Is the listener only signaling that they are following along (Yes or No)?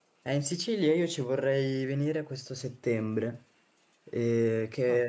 Yes